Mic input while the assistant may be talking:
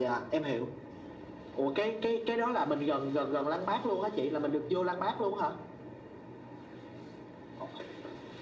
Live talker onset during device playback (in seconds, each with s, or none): none